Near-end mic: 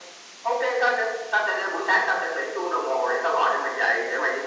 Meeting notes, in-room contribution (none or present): none